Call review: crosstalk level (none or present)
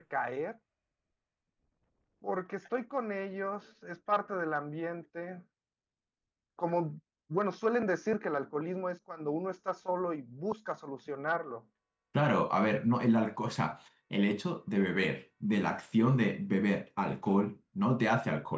none